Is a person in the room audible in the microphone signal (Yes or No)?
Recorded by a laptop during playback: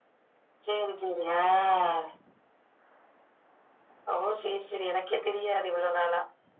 No